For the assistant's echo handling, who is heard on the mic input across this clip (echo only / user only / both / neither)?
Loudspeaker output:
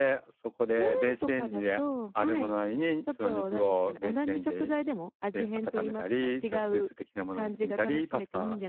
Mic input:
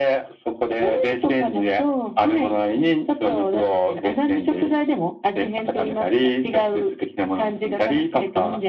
echo only